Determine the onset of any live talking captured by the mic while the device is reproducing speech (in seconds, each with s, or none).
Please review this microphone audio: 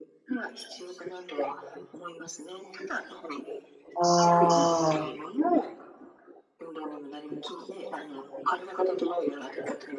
3.9 s